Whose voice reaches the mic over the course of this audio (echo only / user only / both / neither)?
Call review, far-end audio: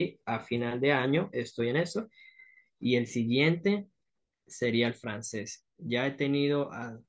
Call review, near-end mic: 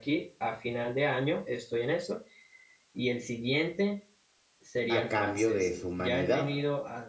both